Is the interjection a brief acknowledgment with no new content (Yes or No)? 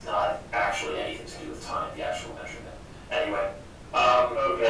No